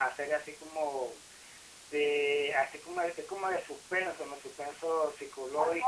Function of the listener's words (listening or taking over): taking over